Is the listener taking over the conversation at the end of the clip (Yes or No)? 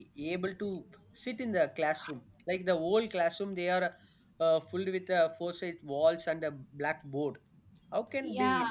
No